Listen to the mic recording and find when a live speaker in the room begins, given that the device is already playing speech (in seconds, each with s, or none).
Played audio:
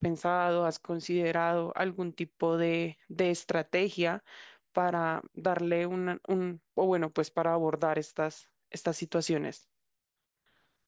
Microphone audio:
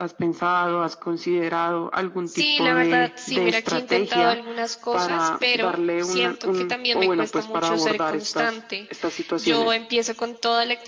2.2 s